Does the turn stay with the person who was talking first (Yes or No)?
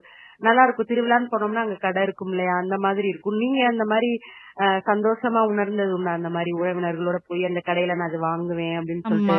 No